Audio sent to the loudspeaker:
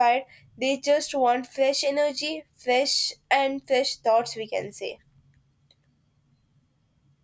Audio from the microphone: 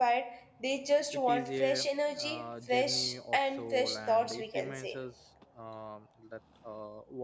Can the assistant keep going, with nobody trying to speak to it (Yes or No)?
No